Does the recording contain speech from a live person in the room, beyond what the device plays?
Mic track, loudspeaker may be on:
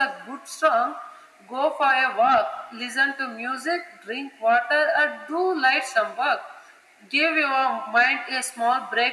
No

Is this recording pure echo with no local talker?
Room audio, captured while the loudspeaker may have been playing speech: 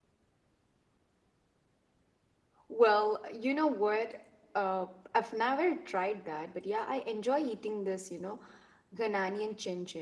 No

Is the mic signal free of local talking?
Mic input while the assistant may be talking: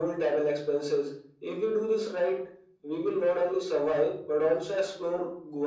Yes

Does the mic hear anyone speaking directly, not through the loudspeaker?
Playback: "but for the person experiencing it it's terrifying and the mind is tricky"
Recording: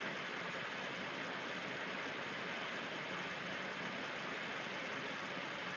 No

